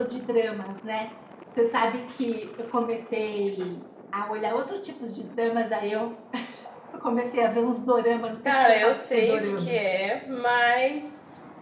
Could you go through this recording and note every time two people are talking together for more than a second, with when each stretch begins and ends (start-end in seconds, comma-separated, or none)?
8.4-9.8